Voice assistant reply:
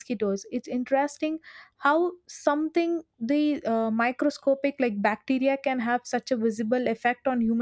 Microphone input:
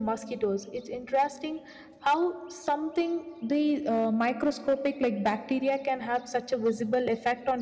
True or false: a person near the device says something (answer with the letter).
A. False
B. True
A